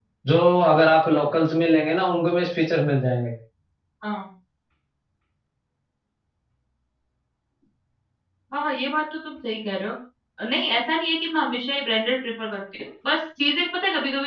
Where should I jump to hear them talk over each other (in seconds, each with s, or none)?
none